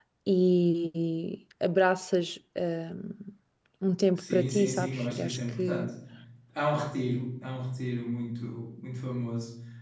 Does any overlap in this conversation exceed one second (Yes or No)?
Yes